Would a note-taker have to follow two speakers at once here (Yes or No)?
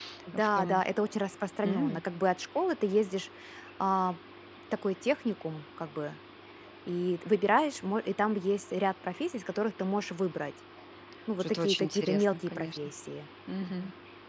Yes